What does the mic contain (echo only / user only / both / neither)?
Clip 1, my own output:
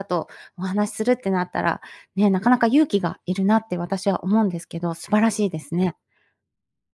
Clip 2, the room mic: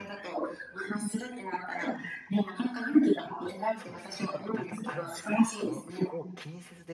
both